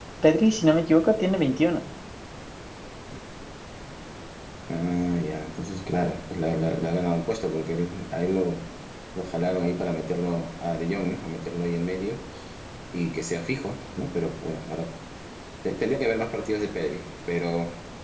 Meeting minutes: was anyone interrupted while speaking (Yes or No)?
No